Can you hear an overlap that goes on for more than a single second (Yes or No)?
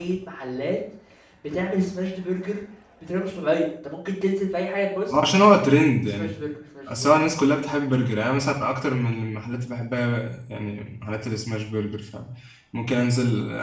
No